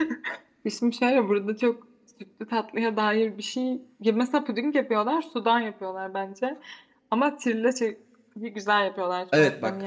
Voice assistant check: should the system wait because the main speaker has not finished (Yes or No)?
No